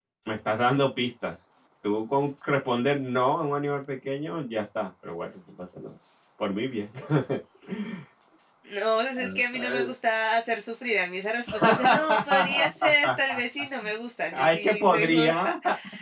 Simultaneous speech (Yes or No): Yes